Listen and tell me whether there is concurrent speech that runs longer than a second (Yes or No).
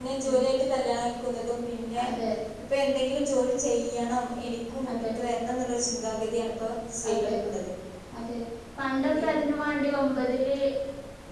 No